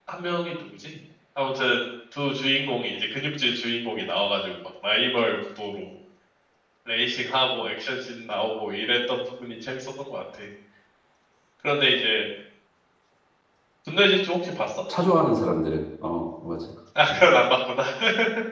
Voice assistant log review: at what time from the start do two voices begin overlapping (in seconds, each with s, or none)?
none